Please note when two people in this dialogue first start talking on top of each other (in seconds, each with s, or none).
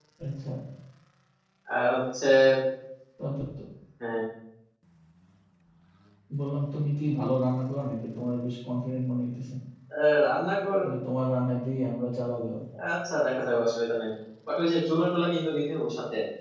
none